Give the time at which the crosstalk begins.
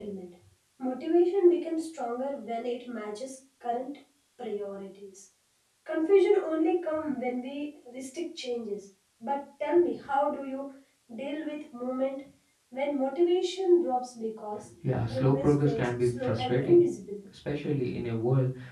15 s

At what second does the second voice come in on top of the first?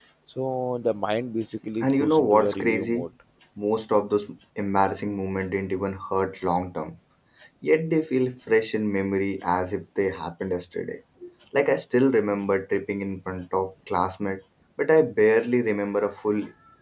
2 s

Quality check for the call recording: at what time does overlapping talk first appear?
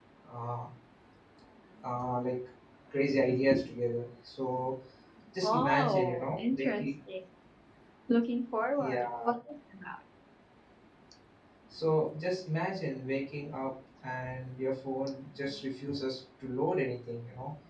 5 s

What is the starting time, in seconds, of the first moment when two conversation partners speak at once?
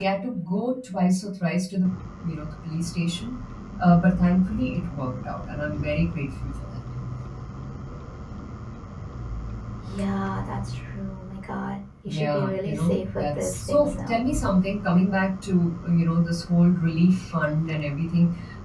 12 s

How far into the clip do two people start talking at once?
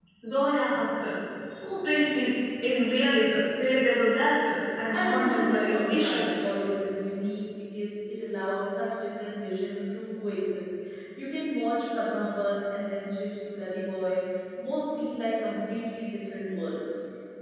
5 s

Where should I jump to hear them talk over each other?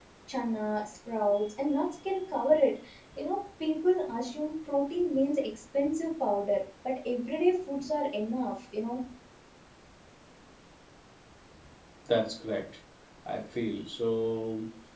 none

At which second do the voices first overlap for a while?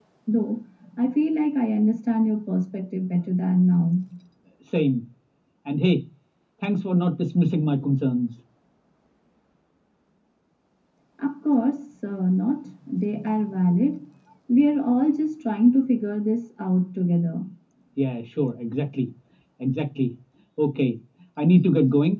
none

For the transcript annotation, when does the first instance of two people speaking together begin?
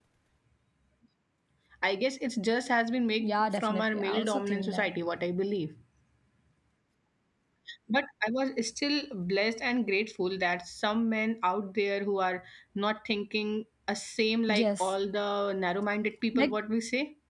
3 s

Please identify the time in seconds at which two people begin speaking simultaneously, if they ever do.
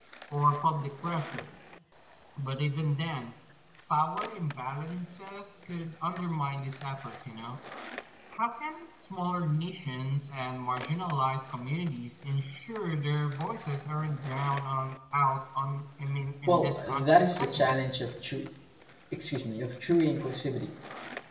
16 s

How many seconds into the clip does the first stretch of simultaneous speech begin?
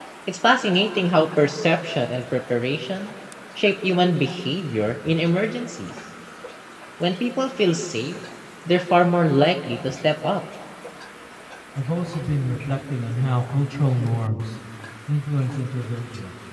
none

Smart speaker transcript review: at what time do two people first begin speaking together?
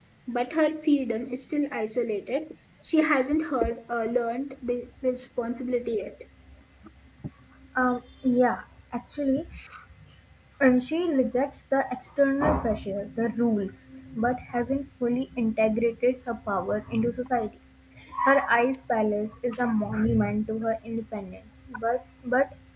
none

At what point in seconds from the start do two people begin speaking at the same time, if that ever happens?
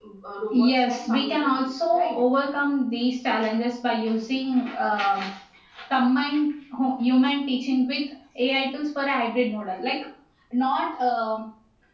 1 s

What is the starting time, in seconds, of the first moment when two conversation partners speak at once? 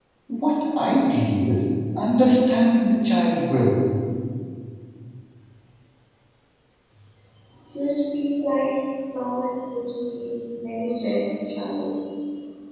none

